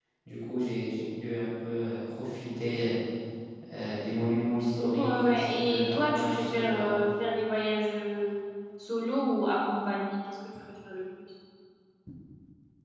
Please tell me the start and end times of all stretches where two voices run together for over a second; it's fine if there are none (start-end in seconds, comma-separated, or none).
5.0-7.0